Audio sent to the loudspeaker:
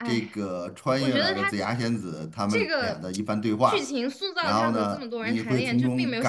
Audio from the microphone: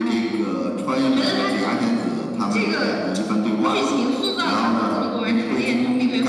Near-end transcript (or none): none